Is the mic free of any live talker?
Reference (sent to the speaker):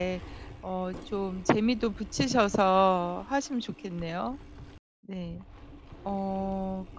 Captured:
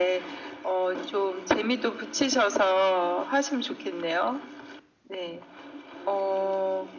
Yes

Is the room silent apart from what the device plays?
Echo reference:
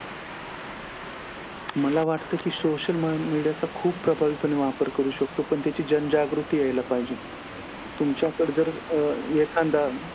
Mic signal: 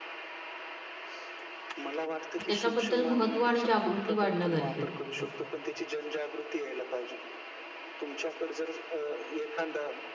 No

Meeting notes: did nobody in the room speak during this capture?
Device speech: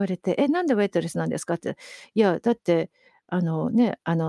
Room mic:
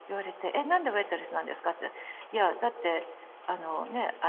Yes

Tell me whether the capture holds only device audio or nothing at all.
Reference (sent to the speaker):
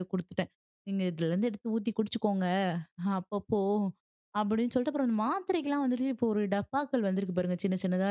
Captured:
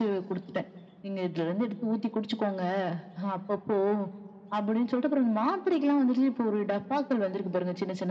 Yes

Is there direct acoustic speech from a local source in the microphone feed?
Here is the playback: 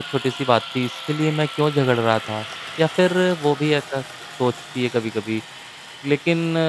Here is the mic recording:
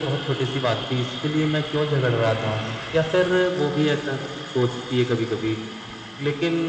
No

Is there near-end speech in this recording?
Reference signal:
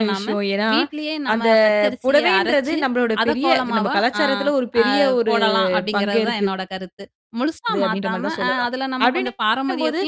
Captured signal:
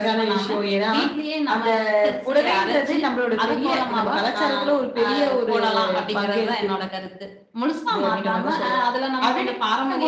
No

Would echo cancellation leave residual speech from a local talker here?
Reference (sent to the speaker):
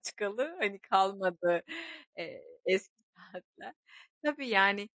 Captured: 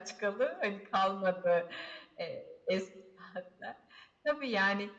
No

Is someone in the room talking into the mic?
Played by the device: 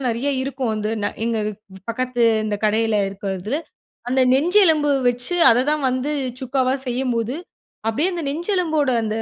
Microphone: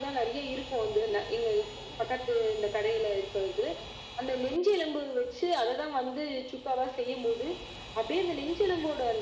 No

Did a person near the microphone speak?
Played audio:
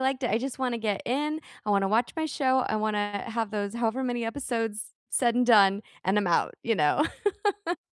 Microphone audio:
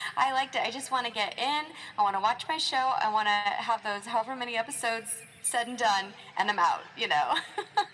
No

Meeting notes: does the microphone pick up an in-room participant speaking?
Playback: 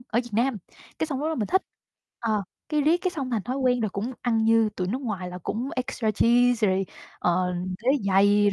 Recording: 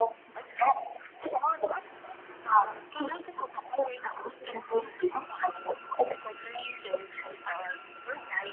No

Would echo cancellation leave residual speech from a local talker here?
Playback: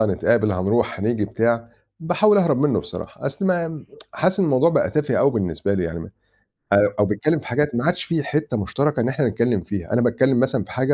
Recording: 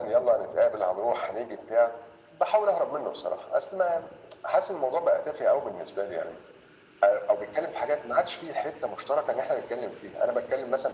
No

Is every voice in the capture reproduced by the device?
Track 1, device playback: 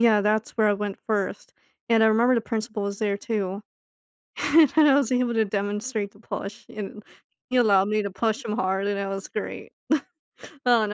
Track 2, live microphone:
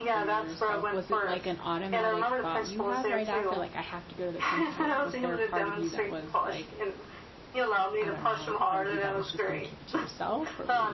No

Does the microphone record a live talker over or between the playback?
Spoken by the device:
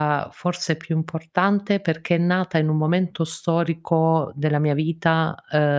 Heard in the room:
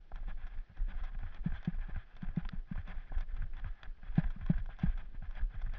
No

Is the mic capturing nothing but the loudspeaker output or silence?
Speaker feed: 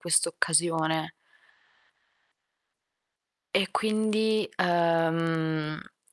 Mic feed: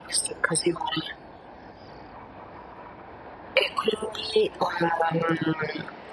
Yes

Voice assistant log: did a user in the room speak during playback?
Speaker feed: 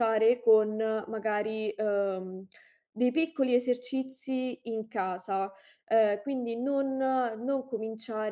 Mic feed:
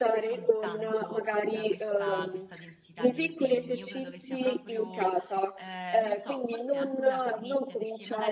Yes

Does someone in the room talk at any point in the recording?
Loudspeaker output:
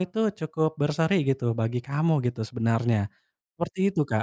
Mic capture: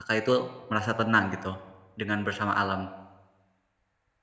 Yes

